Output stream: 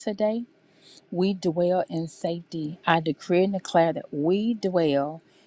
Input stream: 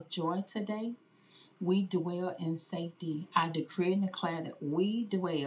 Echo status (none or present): present